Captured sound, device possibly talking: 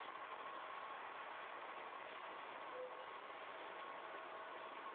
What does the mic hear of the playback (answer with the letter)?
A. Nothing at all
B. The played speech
A